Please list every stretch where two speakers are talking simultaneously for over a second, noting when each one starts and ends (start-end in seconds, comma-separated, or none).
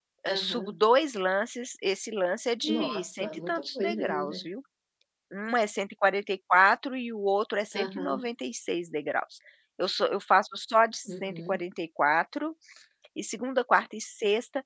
2.6-4.4